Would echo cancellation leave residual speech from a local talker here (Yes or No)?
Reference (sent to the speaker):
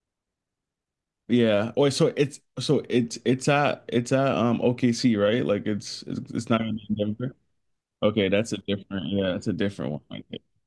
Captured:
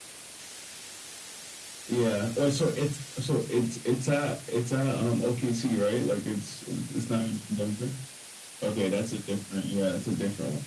No